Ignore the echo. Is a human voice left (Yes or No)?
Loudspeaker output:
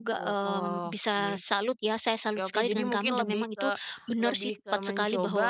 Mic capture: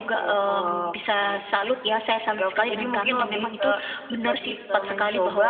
No